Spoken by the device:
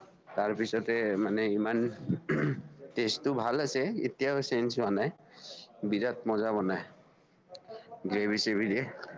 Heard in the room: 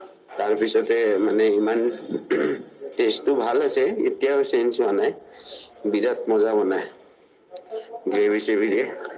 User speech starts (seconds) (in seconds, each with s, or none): none